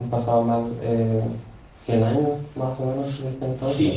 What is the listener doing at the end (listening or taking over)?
taking over